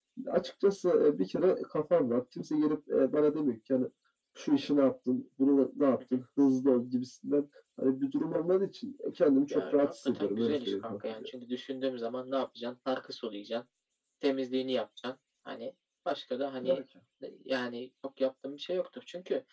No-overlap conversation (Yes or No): No